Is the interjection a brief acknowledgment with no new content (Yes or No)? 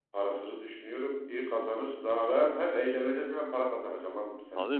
No